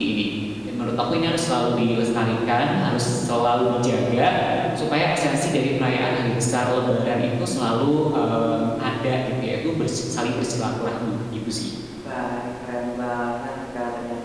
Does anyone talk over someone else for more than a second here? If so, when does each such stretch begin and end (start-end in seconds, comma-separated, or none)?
none